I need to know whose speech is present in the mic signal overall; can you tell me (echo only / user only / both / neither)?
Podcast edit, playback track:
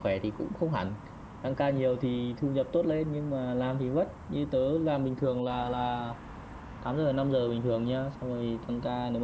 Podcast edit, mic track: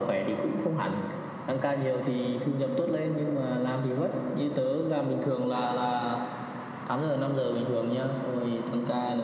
echo only